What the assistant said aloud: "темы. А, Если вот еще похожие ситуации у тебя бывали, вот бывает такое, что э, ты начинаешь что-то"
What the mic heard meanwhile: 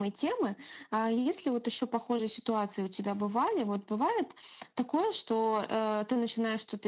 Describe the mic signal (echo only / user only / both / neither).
echo only